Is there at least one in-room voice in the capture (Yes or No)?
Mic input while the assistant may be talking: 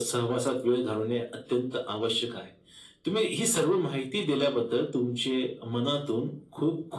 No